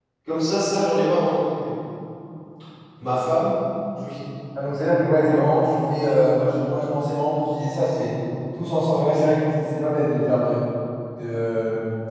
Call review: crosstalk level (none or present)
none